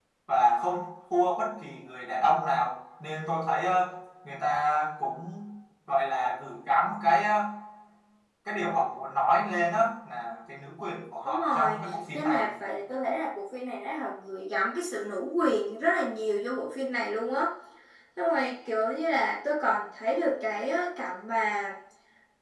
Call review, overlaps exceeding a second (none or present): present